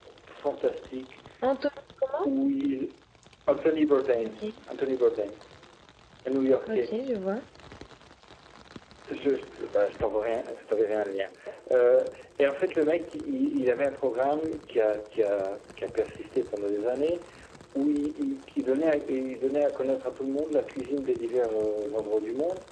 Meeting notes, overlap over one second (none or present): none